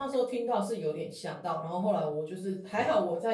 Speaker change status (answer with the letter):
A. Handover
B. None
B